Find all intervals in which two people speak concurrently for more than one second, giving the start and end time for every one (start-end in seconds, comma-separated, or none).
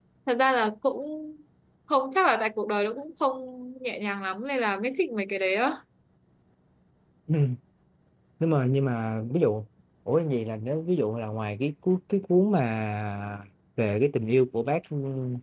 none